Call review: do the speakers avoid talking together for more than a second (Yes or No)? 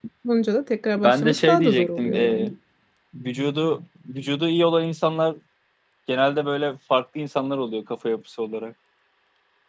No